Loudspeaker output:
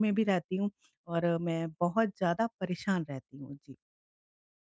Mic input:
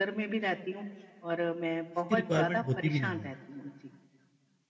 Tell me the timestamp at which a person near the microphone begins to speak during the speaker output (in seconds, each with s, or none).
1.9 s